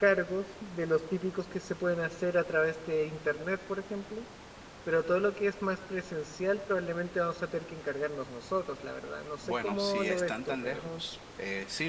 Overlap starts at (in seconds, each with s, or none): 9.4 s